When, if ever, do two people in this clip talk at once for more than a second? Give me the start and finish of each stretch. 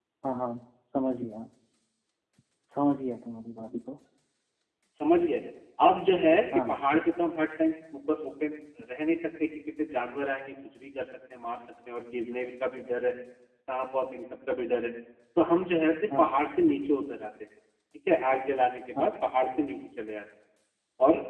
none

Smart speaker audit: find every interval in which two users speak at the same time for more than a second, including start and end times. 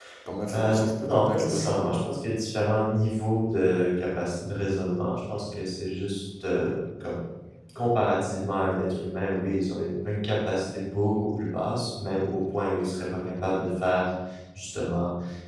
0.5-1.8

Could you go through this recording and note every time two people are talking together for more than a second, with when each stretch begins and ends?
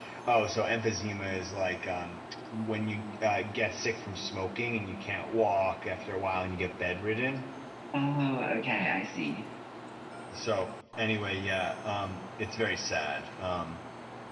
none

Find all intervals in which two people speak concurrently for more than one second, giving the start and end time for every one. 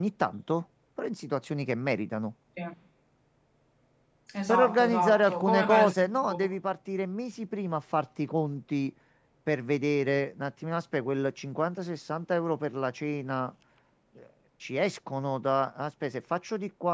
4.5-6.6

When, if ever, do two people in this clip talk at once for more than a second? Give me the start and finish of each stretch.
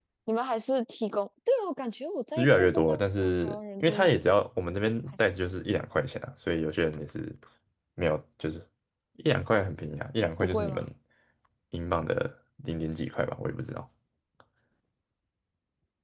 2.4-4.1

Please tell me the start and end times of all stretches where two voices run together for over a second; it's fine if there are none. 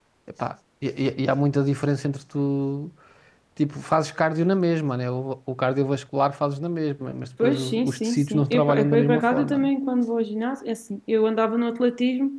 7.4-9.7

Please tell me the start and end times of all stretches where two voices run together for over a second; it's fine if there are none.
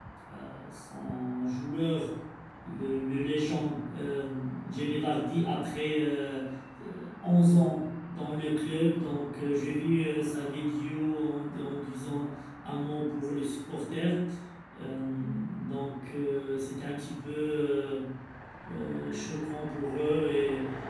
none

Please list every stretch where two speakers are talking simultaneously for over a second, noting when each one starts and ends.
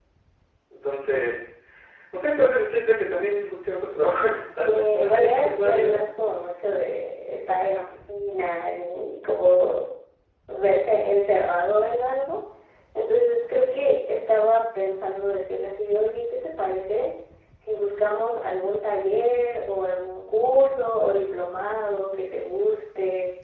4.6-6.0

